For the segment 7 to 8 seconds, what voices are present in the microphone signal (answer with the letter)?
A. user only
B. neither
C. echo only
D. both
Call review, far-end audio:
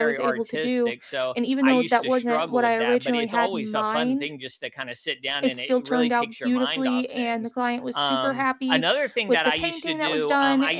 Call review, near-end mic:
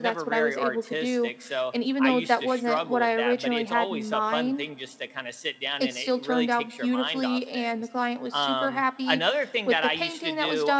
C